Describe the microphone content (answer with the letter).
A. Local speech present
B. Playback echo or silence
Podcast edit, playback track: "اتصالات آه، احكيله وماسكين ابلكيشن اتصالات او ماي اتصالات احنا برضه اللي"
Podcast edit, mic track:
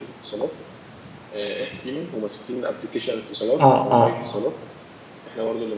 A